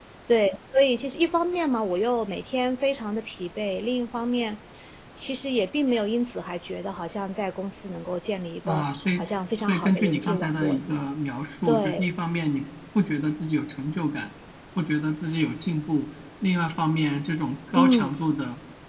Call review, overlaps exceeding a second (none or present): present